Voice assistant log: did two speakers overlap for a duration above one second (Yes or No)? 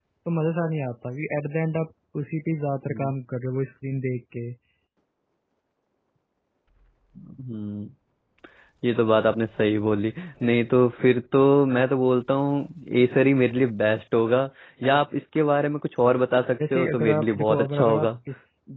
Yes